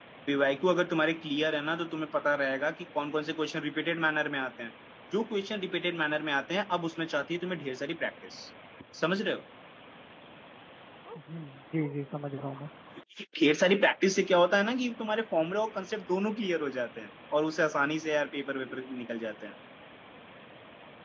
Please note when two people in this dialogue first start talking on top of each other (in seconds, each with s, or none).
none